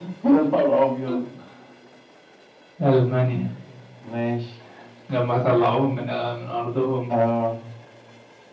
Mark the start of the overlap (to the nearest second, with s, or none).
none